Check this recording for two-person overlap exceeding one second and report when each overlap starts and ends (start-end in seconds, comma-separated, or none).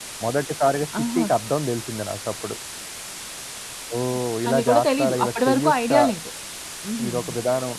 4.5-6.0